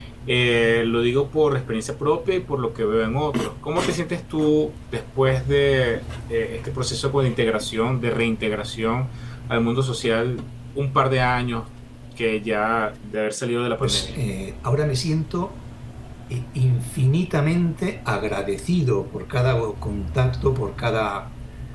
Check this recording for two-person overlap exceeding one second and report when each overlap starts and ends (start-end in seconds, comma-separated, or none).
none